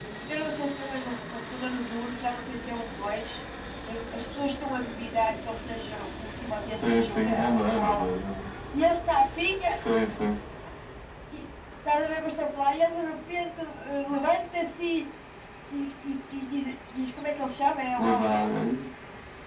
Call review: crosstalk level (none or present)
present